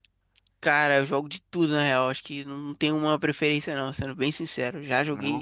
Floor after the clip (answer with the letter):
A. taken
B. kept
B